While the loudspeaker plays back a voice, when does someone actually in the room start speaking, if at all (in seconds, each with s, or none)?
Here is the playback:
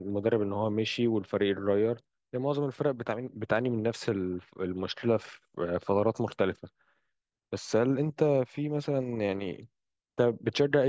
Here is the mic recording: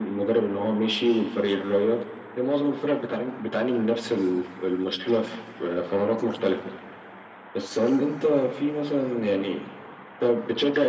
none